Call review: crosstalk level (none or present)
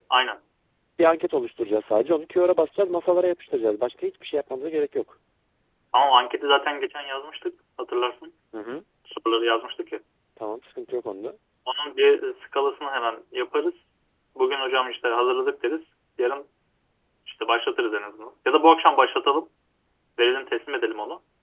none